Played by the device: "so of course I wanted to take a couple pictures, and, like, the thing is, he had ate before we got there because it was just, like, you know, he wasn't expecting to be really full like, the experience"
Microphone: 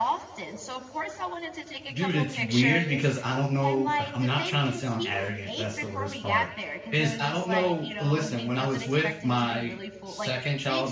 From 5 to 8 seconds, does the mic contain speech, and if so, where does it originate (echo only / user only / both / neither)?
both